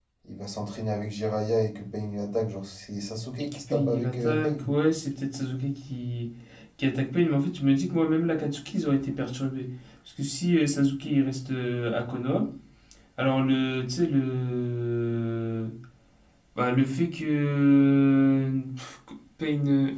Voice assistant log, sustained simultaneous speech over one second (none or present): present